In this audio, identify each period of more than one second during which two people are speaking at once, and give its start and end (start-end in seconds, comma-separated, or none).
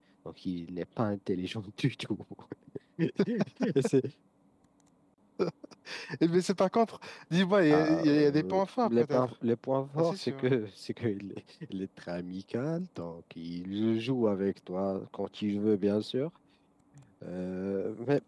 7.7-9.2